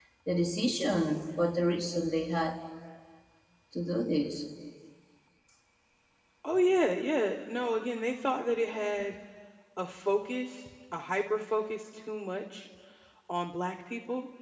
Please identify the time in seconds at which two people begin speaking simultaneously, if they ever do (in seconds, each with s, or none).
none